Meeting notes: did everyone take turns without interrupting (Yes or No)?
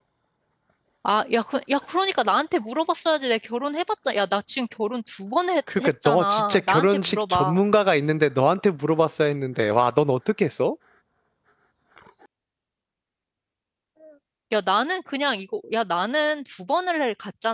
No